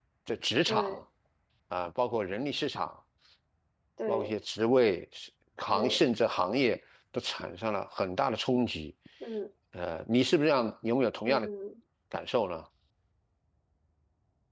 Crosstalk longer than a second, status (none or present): none